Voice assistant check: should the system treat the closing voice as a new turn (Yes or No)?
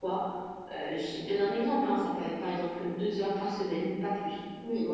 Yes